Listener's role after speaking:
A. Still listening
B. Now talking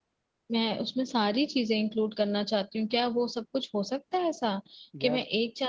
A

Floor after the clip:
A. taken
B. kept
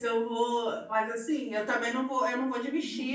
B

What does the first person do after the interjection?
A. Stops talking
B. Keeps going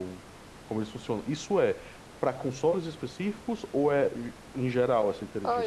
A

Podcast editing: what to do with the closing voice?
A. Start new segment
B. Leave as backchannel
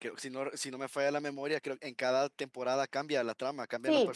A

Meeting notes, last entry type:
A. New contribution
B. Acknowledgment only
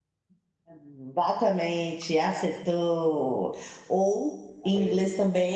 B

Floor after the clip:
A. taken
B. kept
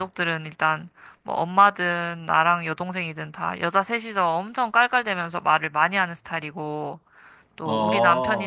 B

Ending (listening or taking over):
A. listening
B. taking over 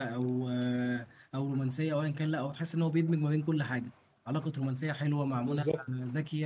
A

